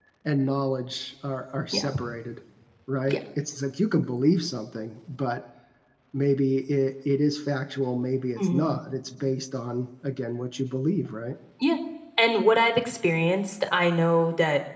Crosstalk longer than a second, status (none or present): none